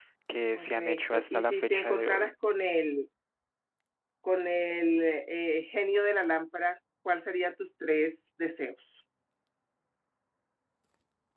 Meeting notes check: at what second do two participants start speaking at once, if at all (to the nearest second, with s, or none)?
1 s